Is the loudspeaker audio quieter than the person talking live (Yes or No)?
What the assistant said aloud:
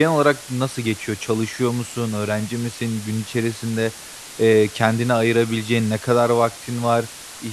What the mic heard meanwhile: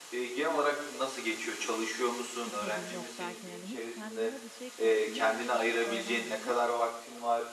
No